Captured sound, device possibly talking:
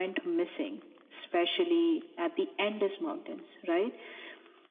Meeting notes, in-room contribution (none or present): none